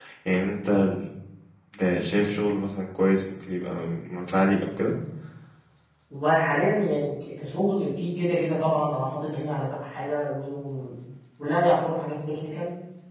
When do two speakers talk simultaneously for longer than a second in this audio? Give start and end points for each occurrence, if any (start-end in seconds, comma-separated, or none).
none